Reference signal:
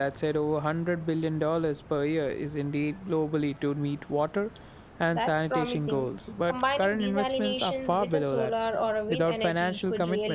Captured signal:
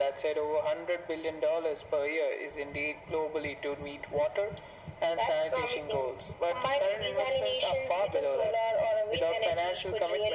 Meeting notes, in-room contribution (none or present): none